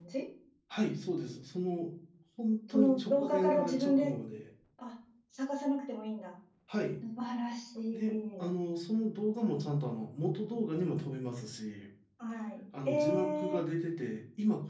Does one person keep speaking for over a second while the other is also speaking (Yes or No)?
Yes